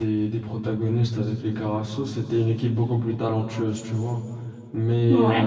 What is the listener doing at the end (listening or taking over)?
listening